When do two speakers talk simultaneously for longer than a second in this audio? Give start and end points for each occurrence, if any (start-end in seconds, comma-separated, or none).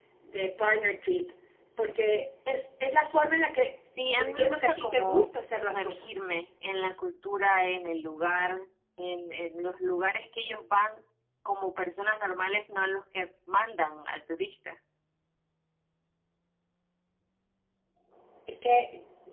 4.2-6.1